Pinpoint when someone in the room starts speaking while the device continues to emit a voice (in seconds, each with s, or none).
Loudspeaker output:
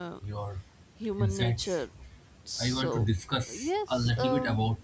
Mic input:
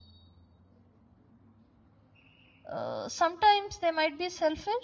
2.7 s